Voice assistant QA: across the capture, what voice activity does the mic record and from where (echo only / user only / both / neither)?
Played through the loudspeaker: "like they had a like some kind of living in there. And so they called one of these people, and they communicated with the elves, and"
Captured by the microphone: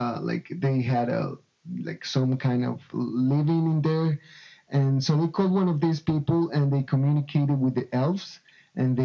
echo only